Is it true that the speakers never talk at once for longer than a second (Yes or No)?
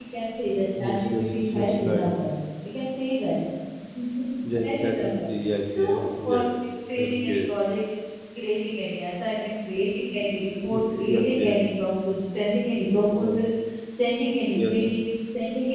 No